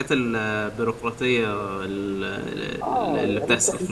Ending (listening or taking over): taking over